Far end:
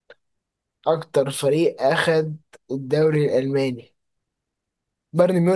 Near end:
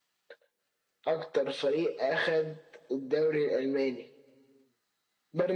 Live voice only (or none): none